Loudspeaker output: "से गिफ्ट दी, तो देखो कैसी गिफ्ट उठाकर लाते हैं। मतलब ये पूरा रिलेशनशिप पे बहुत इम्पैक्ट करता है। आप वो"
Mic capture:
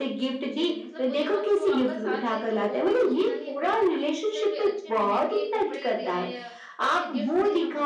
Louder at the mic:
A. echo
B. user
A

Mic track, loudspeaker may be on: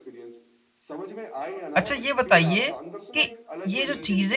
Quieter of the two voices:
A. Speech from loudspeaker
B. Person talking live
A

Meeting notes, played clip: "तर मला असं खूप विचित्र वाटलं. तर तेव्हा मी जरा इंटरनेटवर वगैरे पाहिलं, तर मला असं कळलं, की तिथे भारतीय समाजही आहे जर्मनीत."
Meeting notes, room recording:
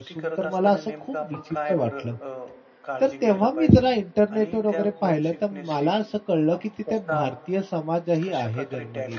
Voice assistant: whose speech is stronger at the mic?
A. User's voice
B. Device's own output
B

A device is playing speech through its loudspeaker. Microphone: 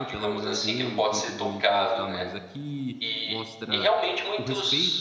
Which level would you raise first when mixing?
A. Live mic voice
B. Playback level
A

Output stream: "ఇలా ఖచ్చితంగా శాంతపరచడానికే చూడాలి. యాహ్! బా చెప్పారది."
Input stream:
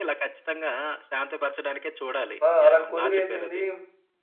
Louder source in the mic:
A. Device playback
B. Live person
B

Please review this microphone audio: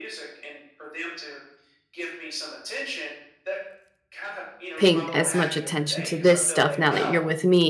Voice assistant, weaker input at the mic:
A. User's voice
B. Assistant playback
B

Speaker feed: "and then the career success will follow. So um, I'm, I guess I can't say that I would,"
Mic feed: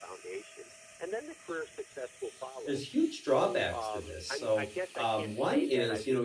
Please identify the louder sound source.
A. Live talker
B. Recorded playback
A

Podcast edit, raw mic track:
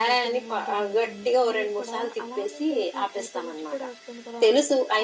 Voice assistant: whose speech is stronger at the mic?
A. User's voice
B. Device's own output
B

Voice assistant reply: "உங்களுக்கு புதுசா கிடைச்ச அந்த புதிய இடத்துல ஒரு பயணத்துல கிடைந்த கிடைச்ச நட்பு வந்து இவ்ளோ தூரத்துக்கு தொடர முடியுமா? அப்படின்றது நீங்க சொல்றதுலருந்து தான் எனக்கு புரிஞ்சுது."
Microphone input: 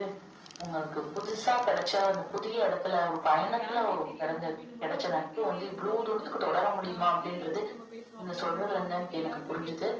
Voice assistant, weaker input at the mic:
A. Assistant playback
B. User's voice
B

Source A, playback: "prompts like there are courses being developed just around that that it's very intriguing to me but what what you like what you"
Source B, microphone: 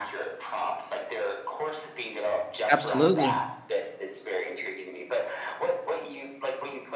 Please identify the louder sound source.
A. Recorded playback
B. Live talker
B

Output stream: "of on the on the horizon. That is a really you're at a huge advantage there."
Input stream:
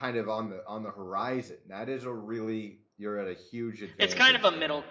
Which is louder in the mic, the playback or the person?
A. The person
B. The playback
A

